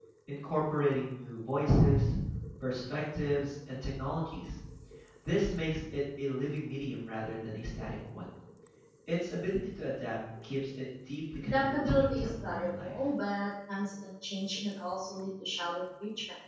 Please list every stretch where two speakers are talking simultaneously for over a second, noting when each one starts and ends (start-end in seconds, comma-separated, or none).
11.4-13.0